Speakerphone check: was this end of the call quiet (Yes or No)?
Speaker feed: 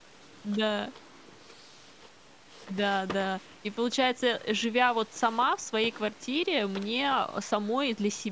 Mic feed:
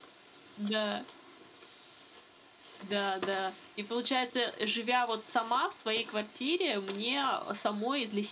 Yes